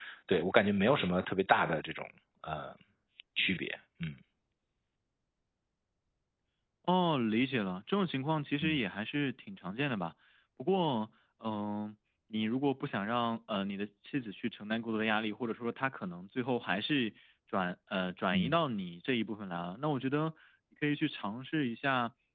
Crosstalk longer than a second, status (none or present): none